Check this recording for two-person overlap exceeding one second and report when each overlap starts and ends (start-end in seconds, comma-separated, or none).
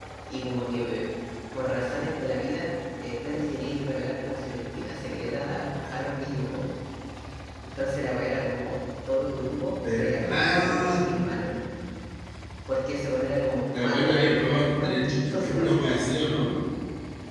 9.7-11.0, 13.7-15.8